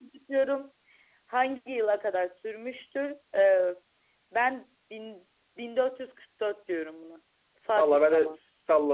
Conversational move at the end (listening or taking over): taking over